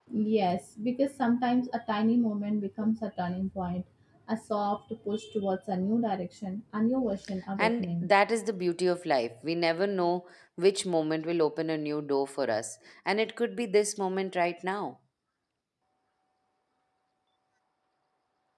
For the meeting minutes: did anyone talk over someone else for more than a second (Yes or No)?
No